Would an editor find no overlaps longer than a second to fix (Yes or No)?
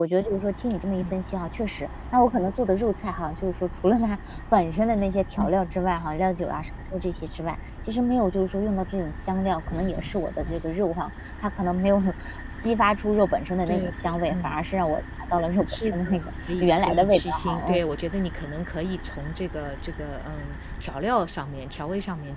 No